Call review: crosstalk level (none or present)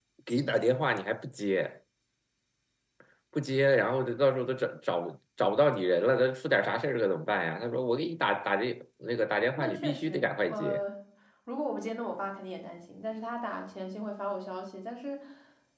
present